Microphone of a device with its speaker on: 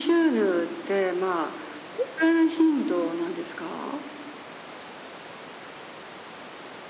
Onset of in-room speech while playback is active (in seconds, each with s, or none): none